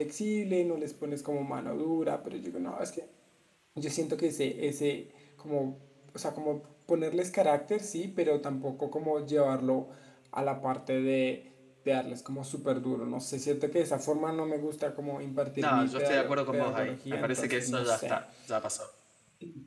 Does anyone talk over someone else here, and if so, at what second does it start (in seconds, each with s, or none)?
15.6 s